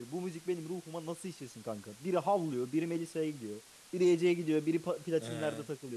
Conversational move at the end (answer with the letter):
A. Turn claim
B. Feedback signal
A